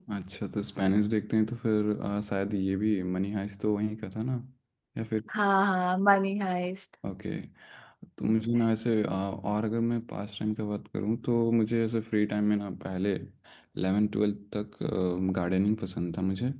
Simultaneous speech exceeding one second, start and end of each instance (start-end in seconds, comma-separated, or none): none